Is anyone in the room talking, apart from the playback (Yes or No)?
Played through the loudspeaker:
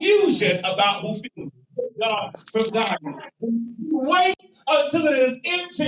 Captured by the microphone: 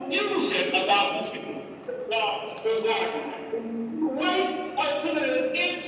No